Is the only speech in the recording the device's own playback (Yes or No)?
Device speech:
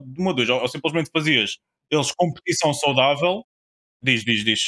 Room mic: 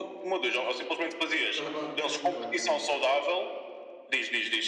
No